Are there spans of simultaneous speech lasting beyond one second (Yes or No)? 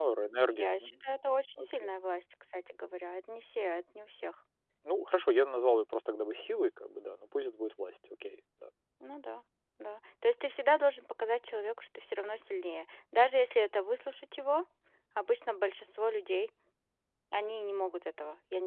No